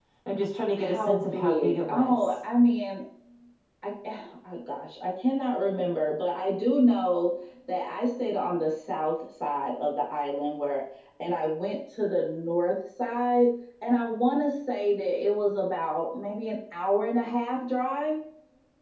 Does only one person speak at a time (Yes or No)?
No